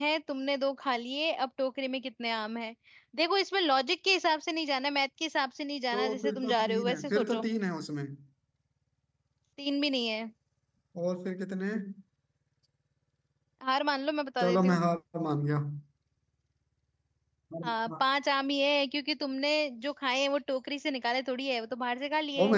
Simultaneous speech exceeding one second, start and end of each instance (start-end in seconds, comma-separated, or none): 5.9-7.4